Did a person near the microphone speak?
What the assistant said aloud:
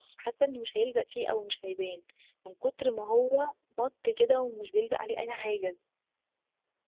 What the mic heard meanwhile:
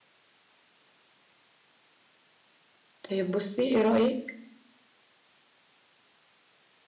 Yes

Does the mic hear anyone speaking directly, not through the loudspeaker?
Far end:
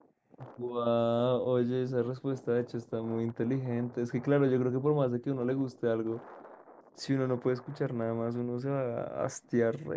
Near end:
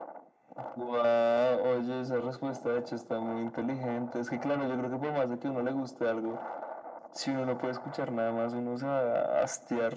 No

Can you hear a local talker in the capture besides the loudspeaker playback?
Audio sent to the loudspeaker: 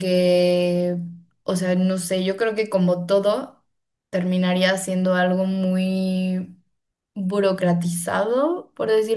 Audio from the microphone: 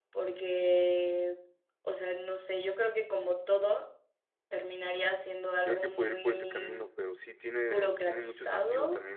Yes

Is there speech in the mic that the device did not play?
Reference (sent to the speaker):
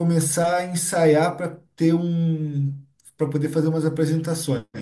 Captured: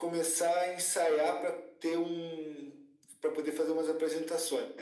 No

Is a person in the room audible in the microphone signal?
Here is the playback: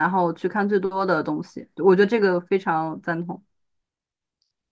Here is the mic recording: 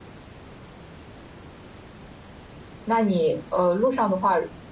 Yes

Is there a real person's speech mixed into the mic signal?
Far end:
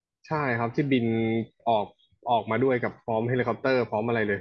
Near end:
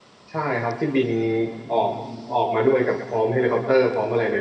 No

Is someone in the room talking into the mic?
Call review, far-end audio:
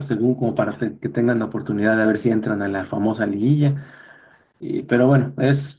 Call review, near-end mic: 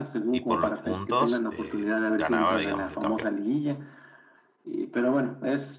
Yes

